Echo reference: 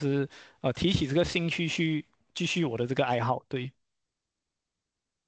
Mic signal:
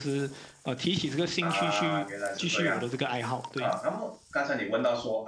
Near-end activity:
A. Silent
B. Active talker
B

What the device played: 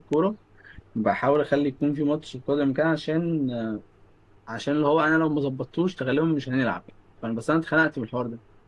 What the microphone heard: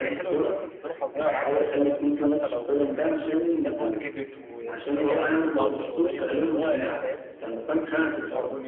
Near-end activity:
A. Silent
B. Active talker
B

